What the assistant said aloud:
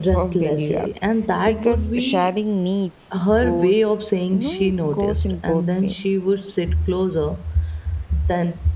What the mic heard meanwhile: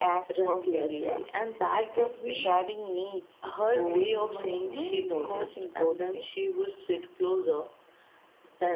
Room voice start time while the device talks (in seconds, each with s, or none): 3.8 s